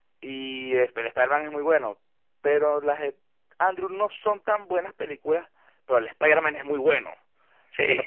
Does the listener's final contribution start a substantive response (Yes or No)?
No